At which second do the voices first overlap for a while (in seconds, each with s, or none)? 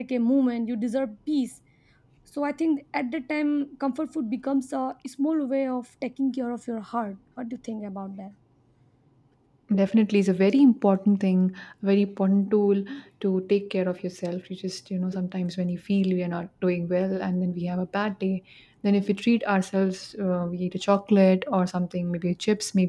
none